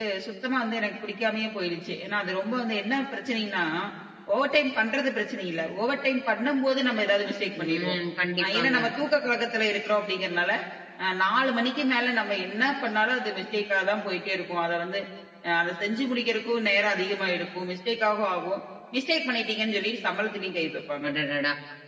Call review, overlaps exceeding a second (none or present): none